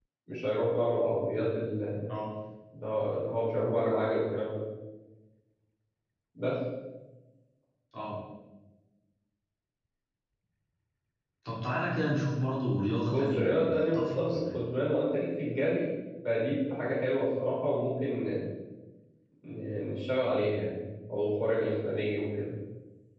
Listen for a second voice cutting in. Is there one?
Yes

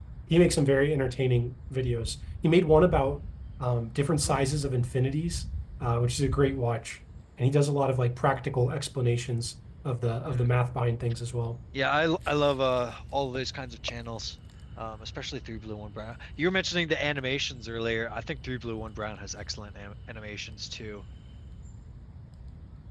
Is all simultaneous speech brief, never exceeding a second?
Yes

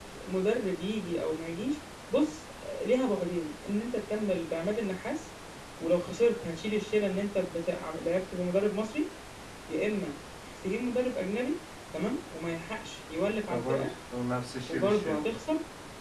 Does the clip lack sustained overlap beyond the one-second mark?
Yes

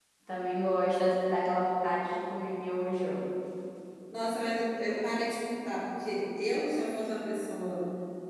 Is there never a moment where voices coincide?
Yes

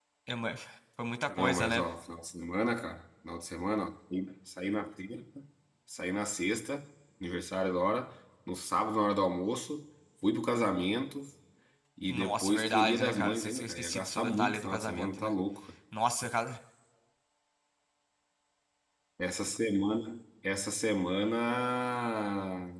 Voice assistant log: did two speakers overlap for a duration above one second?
Yes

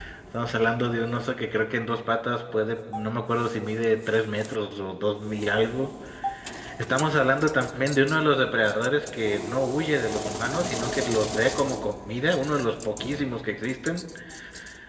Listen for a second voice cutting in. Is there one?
No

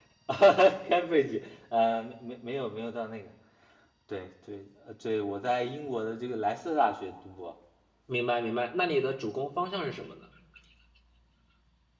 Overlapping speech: No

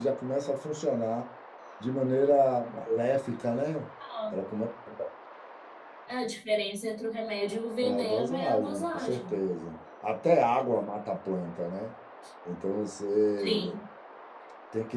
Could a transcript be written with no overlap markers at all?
No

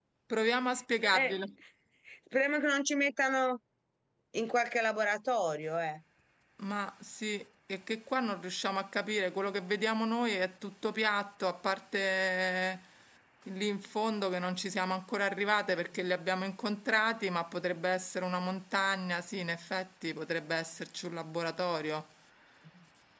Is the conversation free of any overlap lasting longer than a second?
Yes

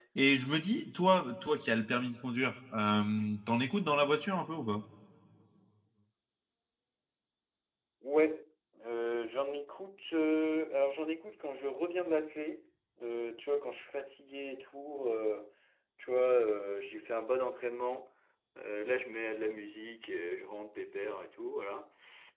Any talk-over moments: No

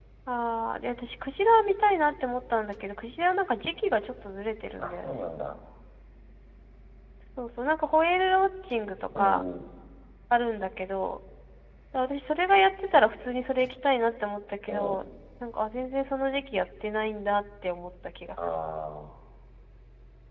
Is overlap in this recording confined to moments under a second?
Yes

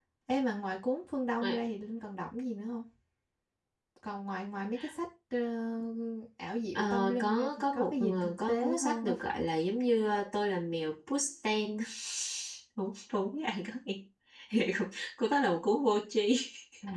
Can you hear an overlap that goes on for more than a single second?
Yes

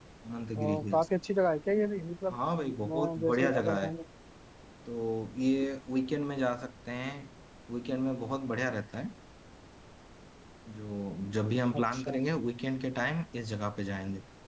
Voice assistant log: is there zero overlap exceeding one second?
No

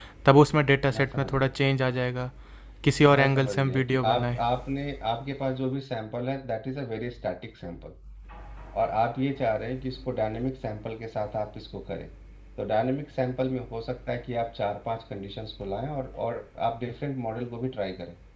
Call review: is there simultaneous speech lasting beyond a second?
Yes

